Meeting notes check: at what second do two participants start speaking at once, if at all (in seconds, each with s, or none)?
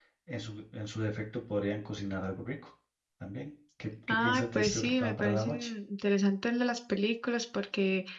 4.1 s